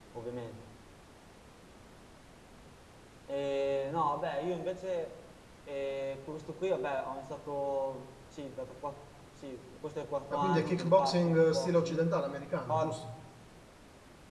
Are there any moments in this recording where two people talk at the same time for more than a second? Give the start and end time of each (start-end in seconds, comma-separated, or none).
10.3-12.1